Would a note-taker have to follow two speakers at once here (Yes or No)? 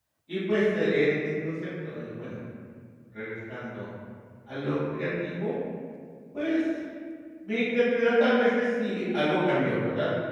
No